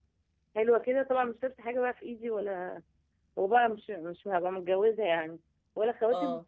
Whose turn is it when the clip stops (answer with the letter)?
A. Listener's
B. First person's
B